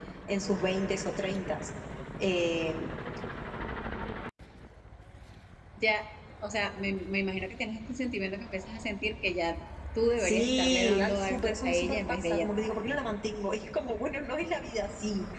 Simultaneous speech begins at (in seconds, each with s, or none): 10.2 s